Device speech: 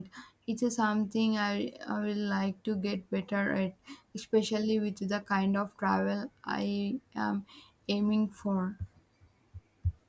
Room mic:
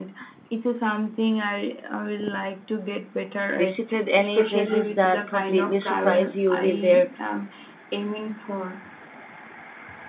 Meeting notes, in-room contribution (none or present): present